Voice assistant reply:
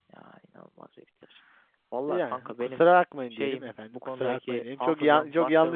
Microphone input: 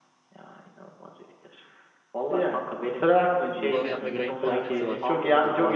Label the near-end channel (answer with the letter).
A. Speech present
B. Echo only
A